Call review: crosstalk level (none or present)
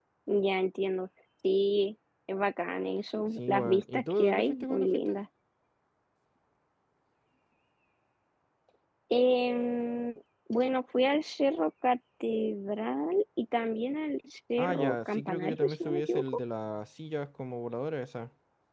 present